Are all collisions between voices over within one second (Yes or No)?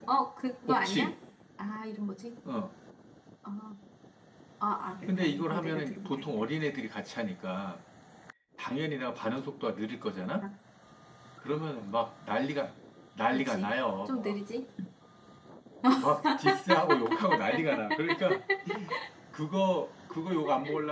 No